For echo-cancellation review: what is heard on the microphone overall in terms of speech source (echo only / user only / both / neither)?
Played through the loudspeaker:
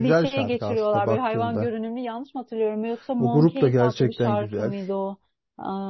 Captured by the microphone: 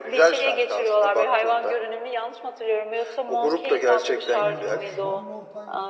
both